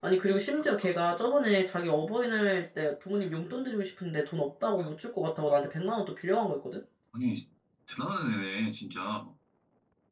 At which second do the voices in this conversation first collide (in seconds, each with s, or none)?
none